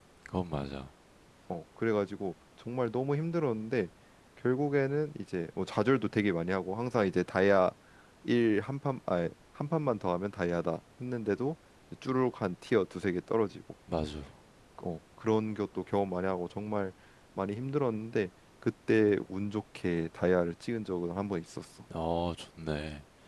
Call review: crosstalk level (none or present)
none